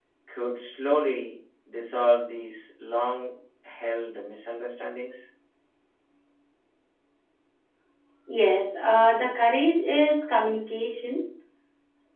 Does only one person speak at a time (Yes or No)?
Yes